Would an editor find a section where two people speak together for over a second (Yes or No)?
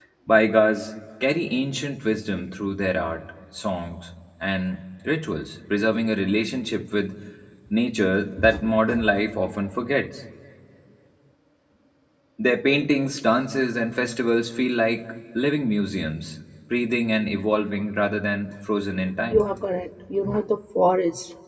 No